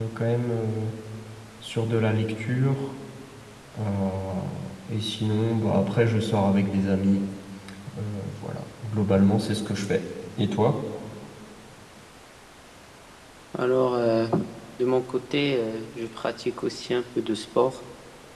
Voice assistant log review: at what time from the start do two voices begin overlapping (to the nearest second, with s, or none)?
none